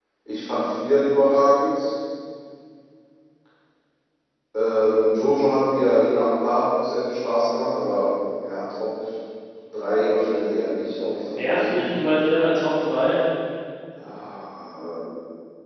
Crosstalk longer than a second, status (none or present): none